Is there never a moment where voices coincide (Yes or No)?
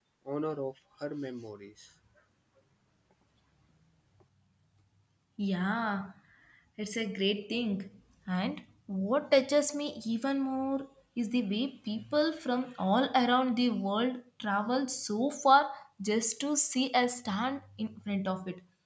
Yes